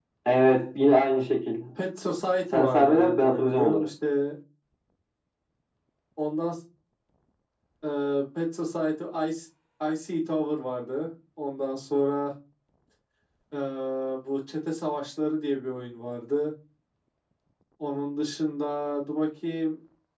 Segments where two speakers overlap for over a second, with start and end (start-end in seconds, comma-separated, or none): 2.5-3.9